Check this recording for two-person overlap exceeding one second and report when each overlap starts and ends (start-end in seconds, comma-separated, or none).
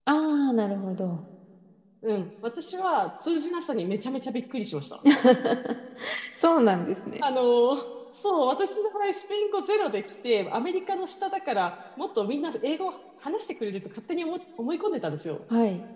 none